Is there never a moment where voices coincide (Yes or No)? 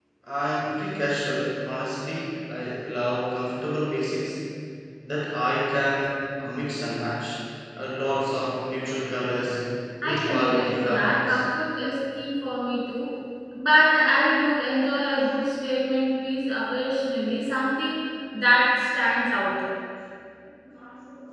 No